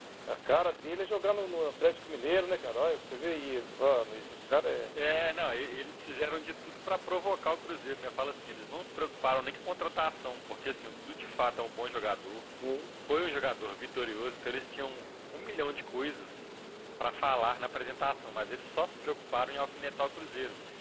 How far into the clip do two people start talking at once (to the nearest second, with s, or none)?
none